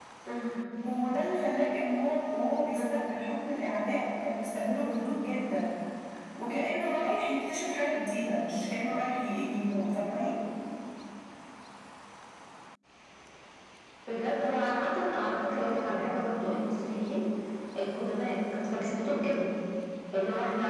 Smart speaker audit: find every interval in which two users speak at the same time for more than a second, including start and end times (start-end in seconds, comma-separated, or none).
none